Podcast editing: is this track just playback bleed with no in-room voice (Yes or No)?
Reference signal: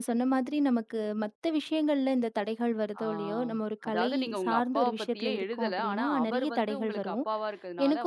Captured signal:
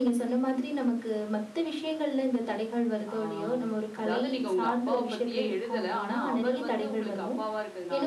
Yes